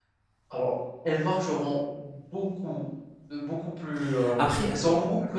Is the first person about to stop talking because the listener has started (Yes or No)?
No